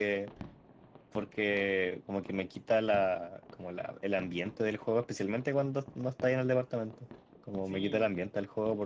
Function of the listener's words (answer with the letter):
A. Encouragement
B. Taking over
A